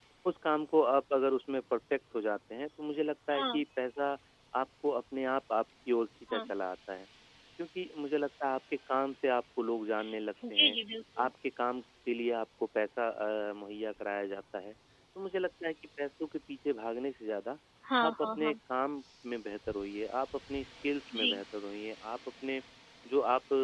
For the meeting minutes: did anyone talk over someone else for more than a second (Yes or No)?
No